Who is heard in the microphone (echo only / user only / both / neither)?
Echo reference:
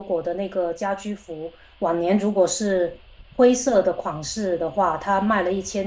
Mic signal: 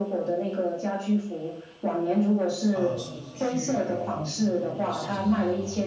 both